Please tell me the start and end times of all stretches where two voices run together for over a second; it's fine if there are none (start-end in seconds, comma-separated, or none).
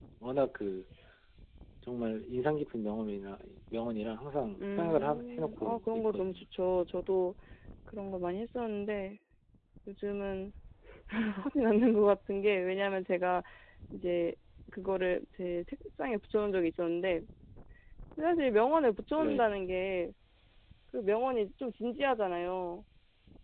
4.7-6.4